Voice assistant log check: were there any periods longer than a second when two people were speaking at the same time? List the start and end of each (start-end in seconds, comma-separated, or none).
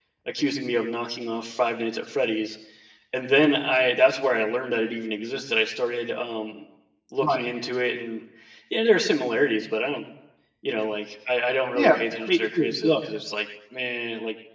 11.7-13.0